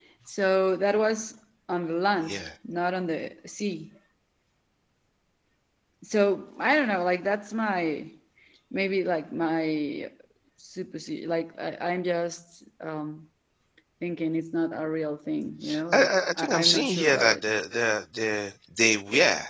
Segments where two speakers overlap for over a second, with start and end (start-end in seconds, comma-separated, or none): 15.9-17.4